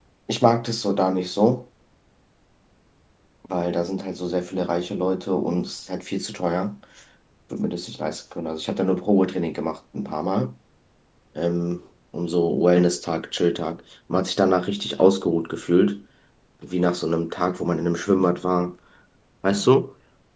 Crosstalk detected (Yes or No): No